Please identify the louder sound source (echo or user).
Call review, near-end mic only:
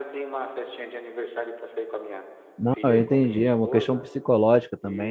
user